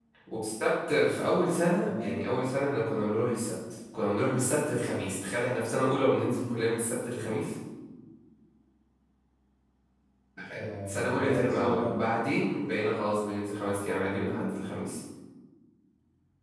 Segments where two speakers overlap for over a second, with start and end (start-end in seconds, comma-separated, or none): 10.6-12.0